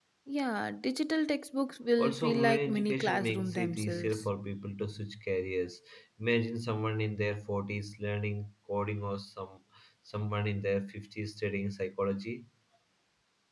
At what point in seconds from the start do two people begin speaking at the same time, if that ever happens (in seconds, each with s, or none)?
2.0 s